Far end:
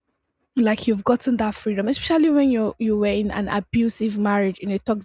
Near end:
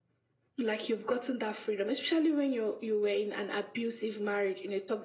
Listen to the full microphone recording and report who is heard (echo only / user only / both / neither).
echo only